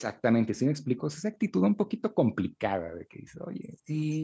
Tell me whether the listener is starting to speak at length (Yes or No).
Yes